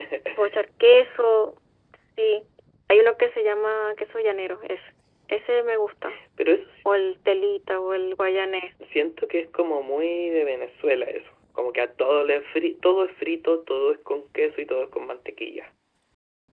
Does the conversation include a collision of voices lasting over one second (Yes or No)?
No